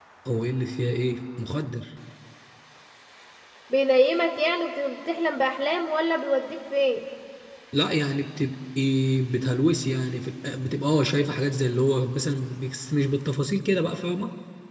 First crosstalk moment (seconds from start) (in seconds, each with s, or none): none